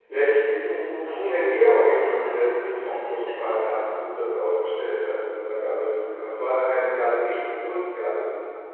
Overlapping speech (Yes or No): Yes